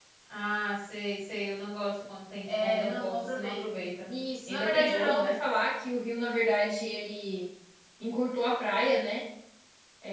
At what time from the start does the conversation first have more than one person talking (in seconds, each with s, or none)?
2.5 s